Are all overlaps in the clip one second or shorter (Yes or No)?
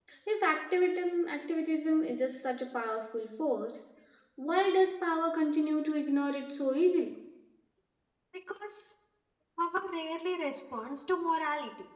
Yes